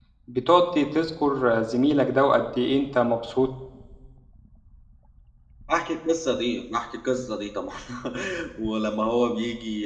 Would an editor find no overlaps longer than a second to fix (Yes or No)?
Yes